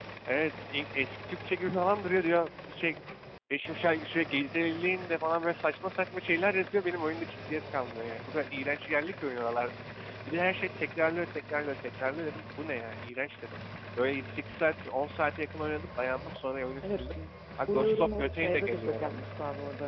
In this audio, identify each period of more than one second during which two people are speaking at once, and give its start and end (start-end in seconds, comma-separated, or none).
17.7-19.2